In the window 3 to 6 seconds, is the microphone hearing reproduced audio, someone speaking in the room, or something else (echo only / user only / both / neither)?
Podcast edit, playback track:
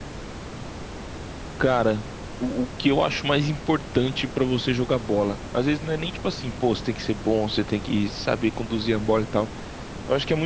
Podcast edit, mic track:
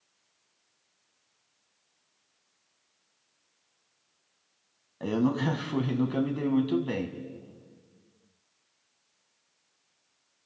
user only